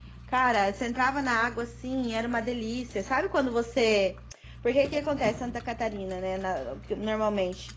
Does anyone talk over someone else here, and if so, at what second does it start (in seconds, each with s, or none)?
none